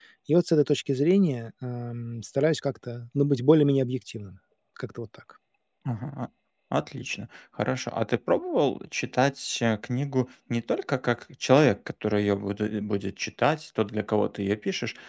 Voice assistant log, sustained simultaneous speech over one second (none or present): none